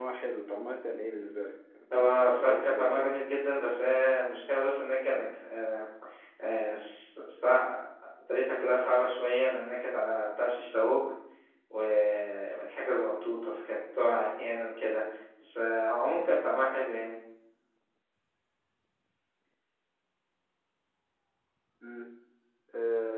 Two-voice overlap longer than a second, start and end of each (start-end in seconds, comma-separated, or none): 1.9-3.2